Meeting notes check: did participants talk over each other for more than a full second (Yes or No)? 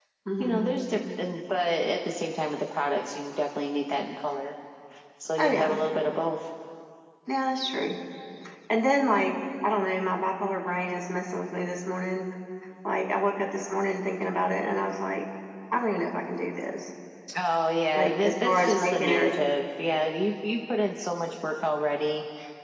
Yes